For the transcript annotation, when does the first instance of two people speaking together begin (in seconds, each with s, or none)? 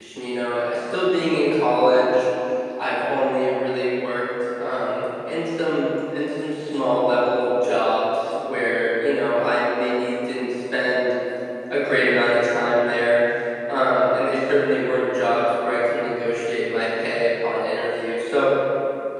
none